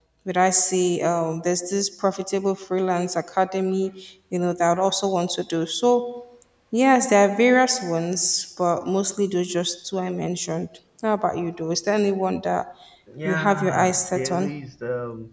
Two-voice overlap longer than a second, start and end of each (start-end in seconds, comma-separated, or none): 13.2-14.5